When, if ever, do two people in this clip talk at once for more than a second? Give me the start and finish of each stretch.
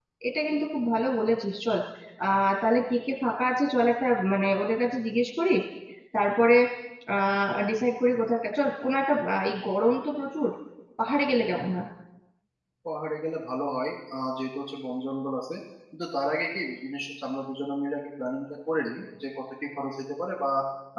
none

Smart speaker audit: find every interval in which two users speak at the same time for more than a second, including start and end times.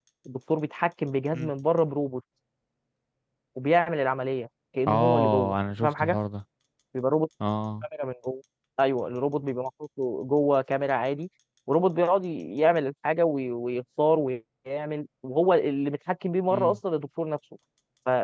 4.9-6.2

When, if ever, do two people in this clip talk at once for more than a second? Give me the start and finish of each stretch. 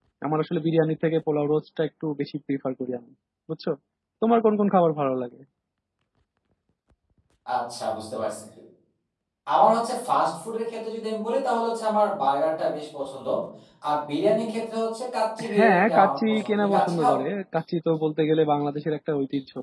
15.6-17.1

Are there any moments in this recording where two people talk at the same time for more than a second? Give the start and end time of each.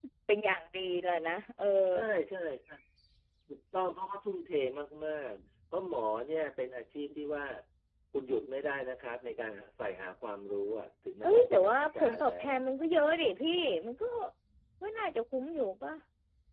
11.2-12.6

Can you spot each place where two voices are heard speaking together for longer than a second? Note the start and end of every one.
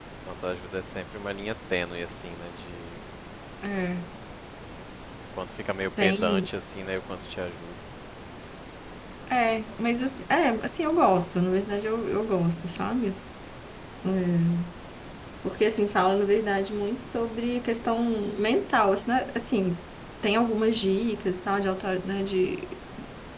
none

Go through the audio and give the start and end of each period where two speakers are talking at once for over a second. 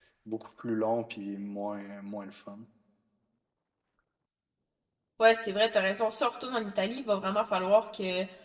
none

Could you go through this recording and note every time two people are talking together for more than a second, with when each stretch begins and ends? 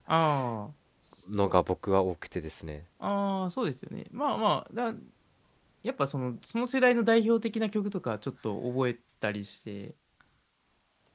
none

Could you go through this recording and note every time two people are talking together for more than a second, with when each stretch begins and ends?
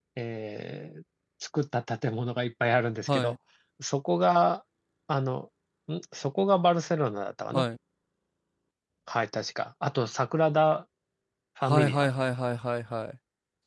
none

